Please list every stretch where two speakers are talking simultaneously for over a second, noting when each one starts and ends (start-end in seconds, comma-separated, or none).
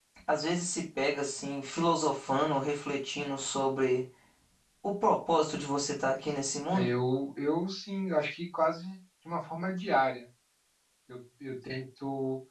none